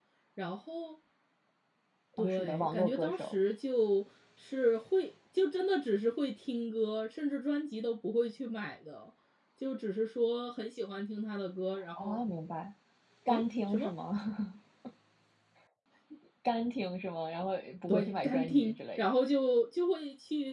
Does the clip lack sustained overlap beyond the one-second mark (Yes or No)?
No